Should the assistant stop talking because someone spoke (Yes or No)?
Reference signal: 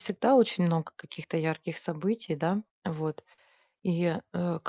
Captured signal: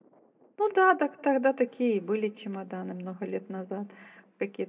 Yes